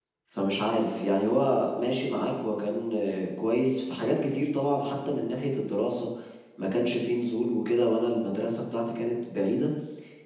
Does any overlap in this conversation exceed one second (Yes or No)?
No